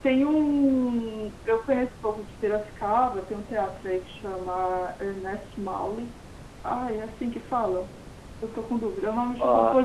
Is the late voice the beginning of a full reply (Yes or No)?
Yes